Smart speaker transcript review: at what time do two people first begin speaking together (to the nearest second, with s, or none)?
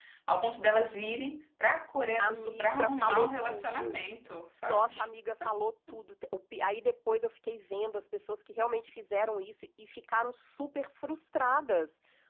2 s